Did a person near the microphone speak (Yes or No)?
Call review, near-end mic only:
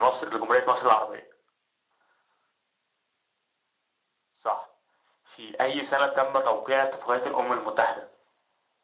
No